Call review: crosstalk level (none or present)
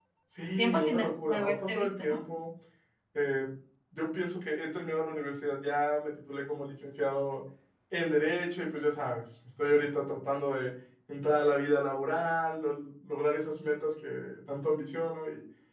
present